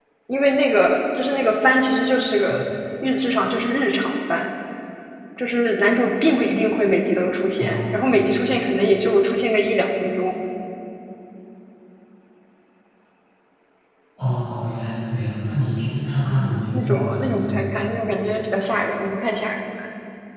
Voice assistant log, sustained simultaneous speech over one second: present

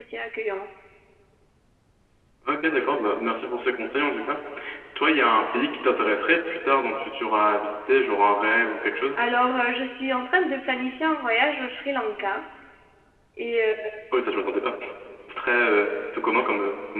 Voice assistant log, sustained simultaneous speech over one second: none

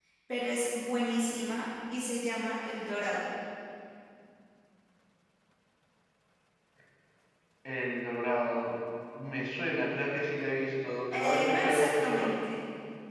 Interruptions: present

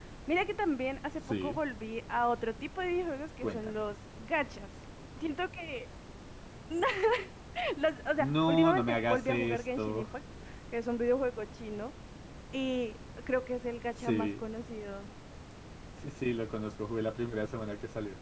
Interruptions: present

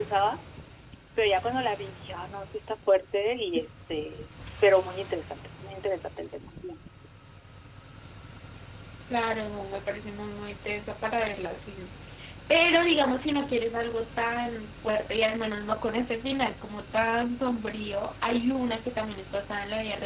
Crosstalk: none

